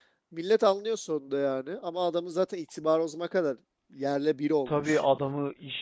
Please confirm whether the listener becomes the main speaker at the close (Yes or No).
Yes